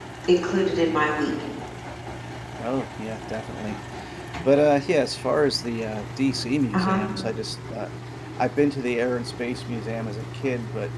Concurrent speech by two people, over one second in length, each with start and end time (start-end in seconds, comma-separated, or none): none